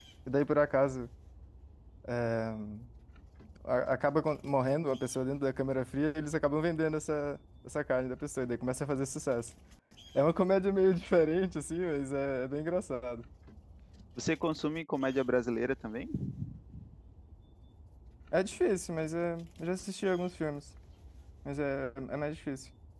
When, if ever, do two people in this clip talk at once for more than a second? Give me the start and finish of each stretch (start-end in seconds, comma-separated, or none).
none